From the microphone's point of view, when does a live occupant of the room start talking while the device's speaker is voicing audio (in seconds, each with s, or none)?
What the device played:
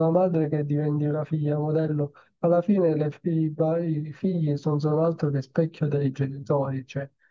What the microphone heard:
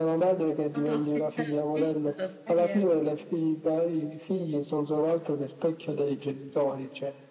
0.7 s